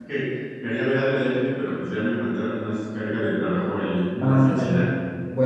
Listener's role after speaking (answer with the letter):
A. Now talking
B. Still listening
A